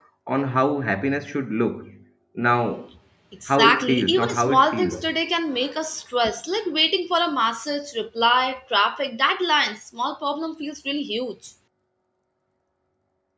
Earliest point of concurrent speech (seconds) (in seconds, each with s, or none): 3.5 s